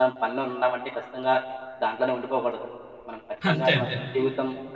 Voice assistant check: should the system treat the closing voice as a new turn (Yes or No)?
No